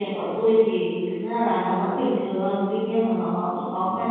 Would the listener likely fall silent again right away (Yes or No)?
Yes